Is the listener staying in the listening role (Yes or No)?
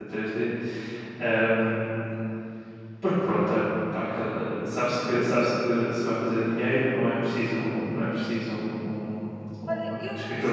No